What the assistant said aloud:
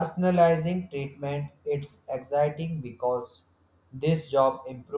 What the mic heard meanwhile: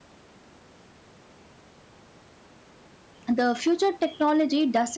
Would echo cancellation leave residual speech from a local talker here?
Yes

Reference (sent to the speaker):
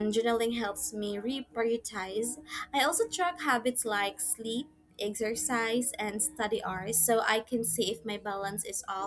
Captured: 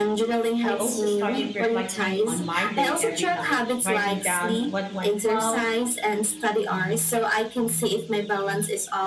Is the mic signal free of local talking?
No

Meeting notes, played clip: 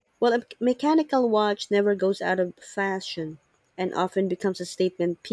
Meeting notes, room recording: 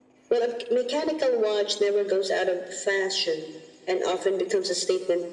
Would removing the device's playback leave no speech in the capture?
Yes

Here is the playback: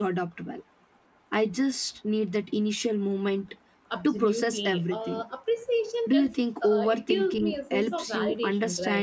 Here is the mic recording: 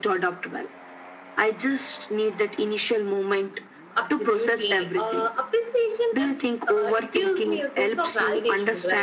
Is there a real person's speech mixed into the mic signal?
No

